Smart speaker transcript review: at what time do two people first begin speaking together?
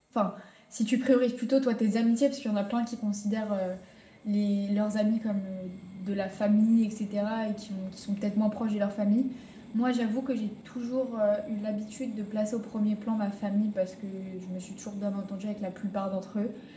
none

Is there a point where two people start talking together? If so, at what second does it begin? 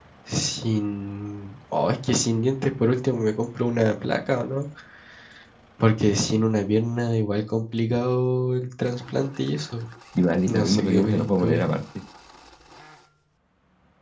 10.5 s

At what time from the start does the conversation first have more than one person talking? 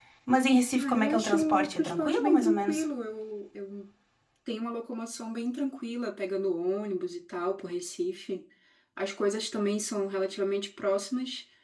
0.8 s

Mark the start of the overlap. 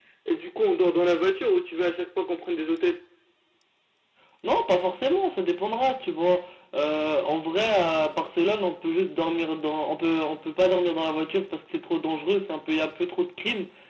none

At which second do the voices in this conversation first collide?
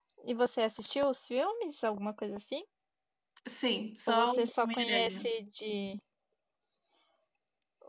4.1 s

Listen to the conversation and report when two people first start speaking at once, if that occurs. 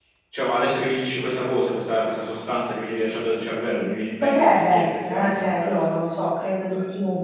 4.2 s

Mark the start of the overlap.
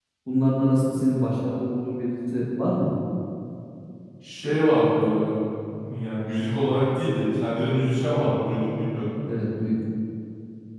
none

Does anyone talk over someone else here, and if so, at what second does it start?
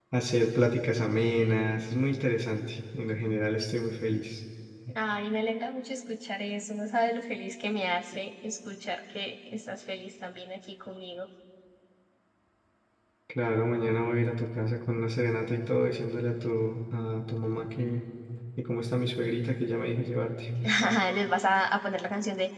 none

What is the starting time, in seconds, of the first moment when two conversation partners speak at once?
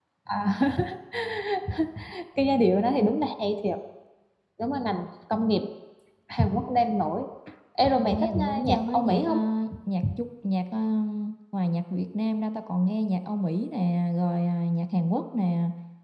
8.1 s

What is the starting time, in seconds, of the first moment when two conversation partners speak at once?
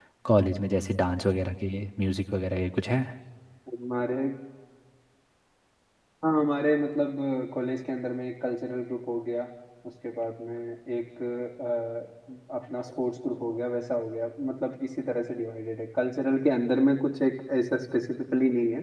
none

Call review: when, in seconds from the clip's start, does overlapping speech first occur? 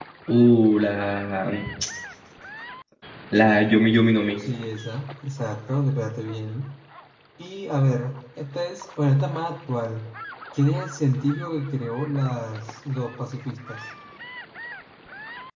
none

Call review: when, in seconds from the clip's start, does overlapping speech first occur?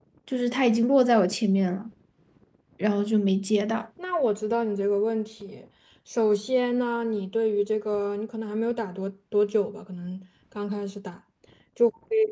none

